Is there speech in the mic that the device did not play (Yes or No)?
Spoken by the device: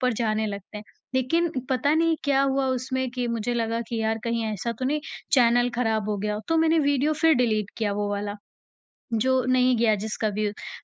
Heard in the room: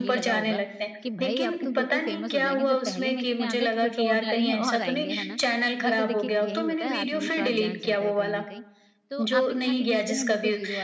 Yes